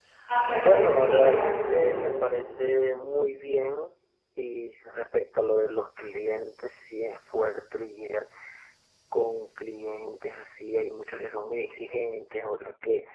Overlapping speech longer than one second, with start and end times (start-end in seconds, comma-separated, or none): 0.6-2.0